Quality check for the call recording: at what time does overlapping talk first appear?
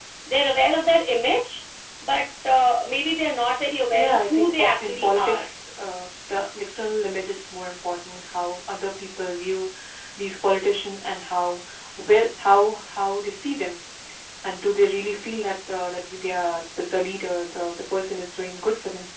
3.9 s

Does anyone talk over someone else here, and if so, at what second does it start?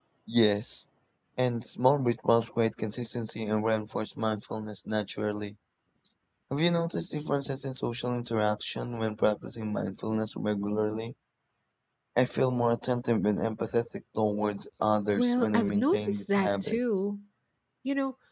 15.2 s

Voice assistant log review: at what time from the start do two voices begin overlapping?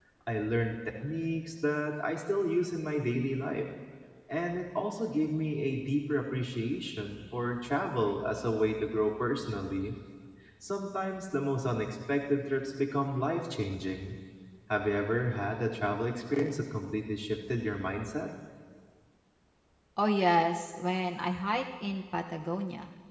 none

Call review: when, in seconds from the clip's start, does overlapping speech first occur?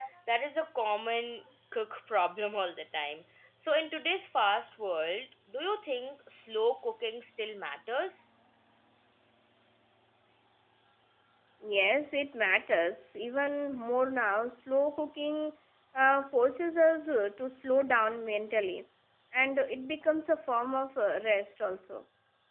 none

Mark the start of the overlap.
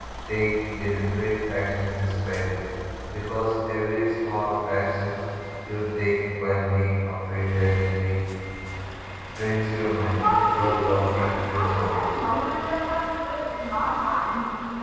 10.2 s

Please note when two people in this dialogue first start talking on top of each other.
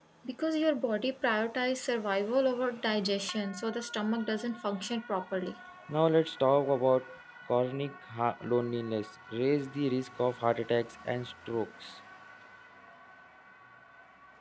none

